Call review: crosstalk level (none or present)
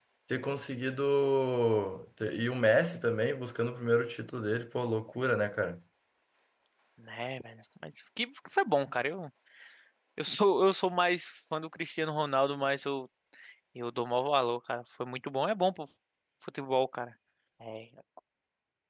none